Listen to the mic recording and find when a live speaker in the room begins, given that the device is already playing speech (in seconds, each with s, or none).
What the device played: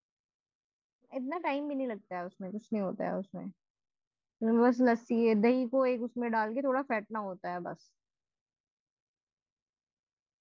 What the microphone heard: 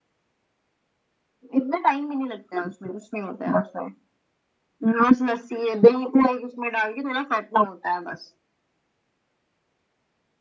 none